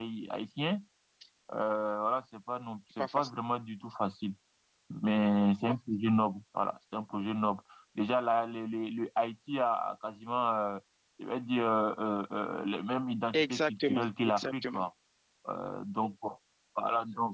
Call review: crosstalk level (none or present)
present